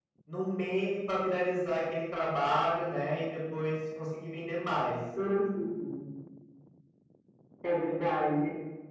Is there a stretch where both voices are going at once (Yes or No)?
No